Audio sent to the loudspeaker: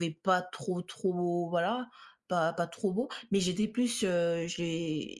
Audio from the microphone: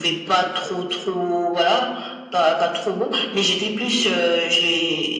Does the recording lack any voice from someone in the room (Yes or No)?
Yes